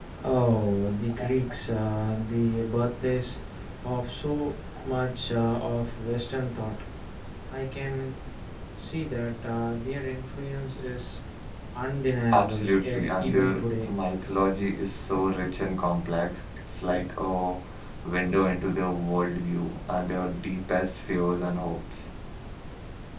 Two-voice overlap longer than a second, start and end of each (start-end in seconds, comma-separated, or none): 12.3-13.9